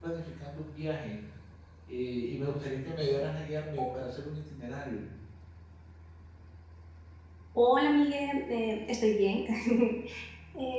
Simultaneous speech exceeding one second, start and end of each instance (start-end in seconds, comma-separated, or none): none